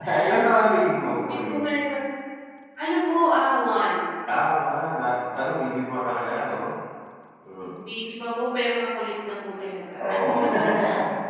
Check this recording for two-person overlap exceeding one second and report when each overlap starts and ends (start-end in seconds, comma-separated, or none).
none